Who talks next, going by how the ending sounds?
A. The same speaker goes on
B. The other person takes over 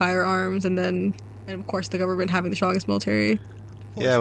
B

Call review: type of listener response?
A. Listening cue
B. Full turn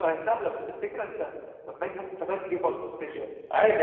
B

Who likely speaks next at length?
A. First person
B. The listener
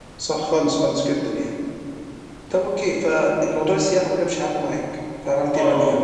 B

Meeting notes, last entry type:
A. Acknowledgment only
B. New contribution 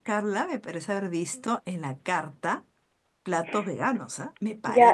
B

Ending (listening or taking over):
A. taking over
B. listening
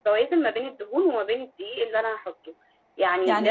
B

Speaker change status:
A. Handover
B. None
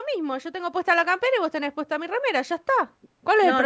A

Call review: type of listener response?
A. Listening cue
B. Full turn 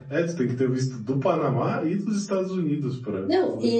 B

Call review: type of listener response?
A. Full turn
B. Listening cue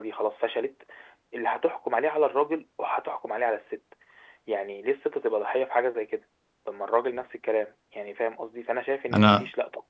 B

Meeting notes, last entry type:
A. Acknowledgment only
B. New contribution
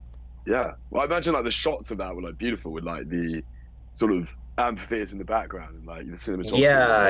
B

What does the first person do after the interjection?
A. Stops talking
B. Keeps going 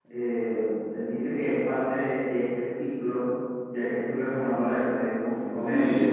A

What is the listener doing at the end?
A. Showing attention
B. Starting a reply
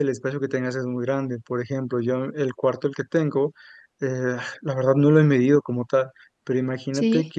A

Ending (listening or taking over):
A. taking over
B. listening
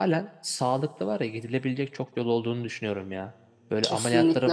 B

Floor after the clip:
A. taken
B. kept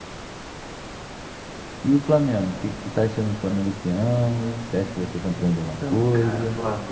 A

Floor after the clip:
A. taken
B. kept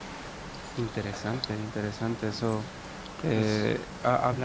B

